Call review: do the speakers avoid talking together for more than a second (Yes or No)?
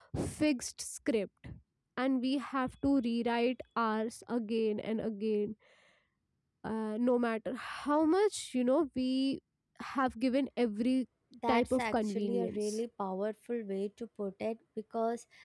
No